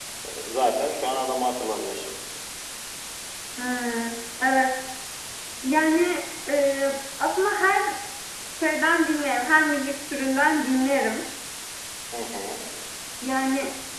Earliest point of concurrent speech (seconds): none

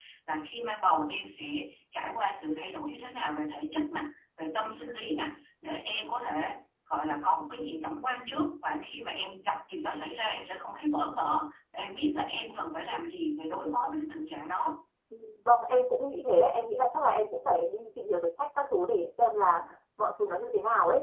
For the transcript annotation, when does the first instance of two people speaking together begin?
none

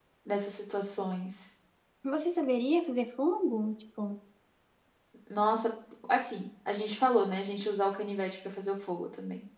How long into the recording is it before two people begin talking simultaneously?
none

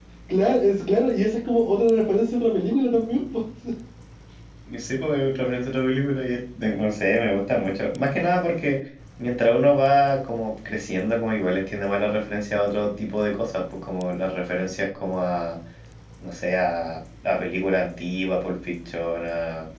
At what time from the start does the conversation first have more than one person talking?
none

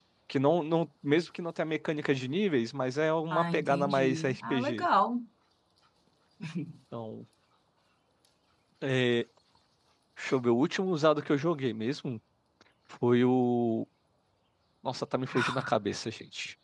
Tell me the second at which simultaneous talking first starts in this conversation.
3.3 s

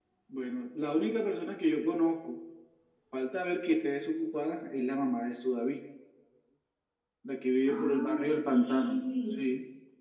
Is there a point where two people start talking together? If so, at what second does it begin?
7.8 s

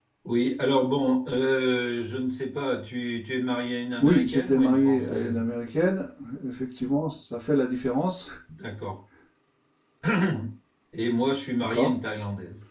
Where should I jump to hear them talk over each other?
4.0 s

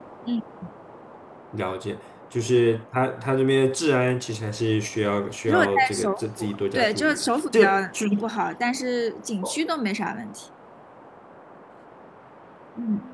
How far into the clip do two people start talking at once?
5.5 s

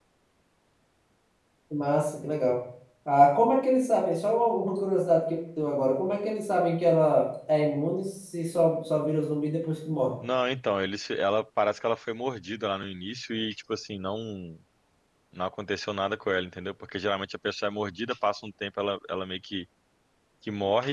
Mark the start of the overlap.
none

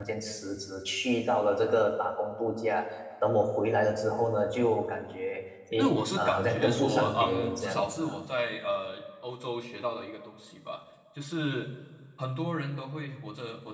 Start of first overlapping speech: 5.7 s

